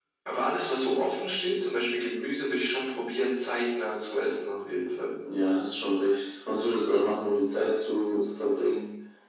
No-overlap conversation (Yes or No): Yes